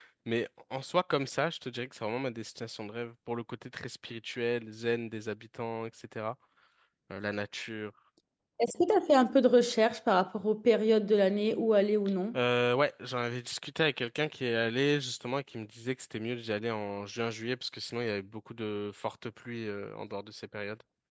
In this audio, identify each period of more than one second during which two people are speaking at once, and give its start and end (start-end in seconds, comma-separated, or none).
none